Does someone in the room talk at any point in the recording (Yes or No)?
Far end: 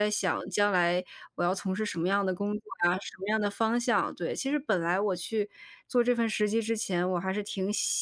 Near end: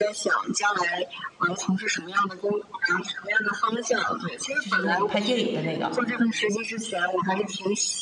Yes